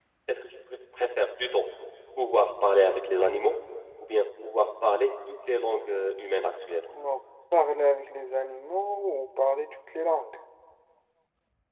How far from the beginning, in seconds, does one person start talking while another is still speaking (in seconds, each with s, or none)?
none